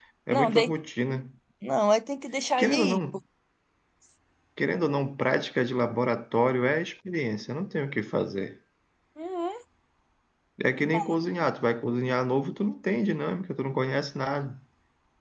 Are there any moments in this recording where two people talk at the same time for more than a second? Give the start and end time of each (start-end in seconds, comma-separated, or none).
none